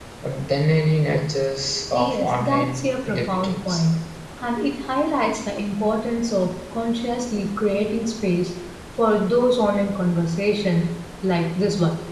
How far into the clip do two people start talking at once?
2 s

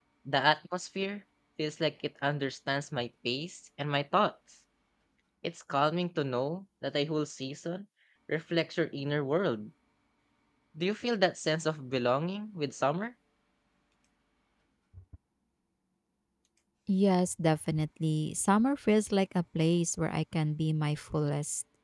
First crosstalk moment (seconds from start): none

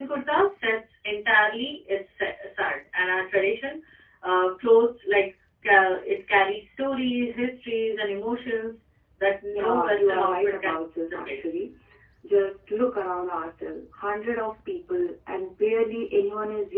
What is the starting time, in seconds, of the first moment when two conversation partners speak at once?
10 s

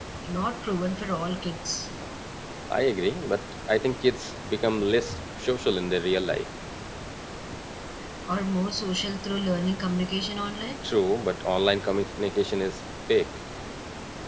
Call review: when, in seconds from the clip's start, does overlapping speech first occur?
none

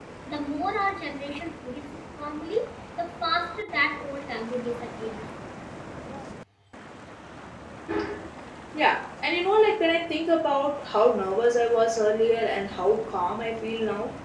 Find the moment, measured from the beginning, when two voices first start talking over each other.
none

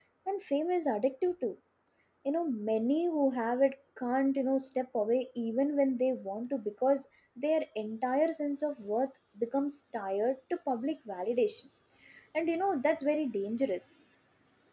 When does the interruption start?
none

